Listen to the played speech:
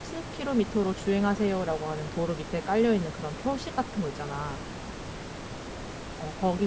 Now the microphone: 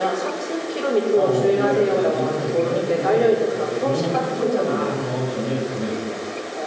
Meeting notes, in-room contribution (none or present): present